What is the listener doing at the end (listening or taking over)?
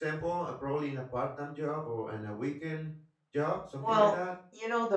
taking over